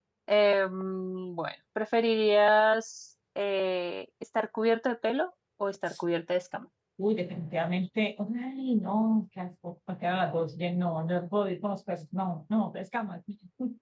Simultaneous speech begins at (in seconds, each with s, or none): none